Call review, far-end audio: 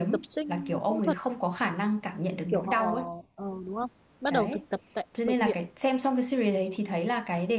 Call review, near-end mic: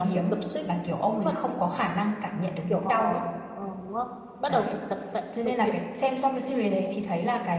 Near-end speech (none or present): none